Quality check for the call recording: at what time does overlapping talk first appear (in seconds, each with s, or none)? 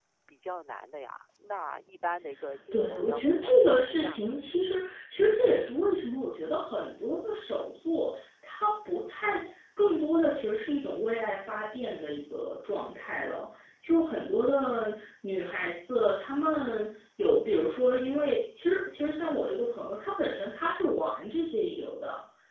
2.7 s